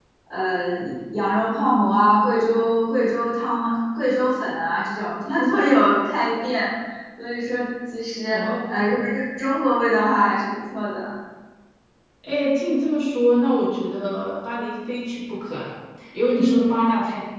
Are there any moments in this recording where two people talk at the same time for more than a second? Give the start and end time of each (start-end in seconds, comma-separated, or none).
none